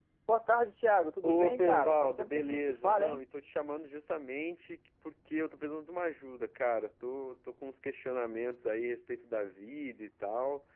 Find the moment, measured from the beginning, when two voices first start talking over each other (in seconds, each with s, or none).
1.2 s